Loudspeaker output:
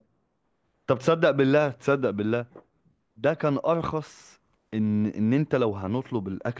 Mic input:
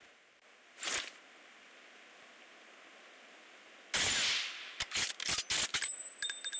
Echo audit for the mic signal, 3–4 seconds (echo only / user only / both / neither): neither